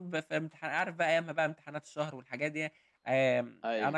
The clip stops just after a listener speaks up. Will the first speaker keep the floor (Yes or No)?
Yes